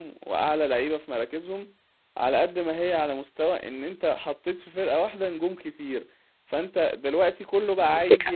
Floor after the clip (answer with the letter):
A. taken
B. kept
B